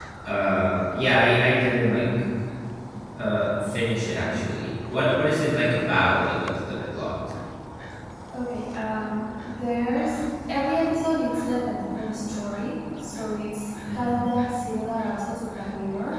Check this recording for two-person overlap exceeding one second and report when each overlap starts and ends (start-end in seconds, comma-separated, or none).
none